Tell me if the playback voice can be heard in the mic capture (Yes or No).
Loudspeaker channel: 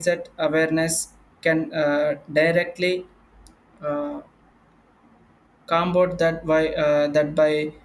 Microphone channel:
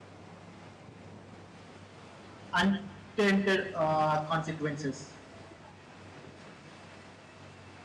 No